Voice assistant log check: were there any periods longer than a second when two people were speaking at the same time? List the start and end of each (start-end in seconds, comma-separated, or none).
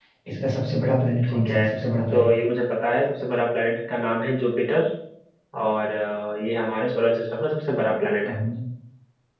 none